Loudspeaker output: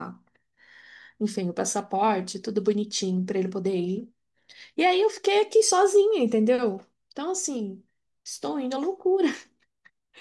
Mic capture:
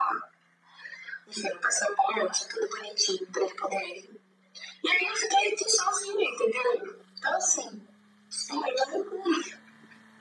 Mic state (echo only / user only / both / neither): echo only